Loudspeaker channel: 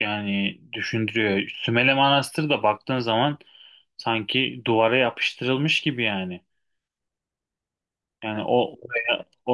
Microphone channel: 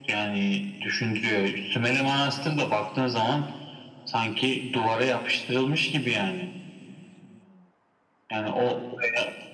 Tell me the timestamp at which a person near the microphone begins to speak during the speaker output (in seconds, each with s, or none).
none